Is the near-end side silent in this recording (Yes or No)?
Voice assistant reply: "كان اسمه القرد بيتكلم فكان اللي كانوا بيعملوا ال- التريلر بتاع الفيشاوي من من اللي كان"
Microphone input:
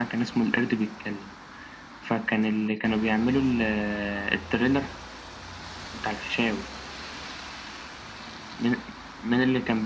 Yes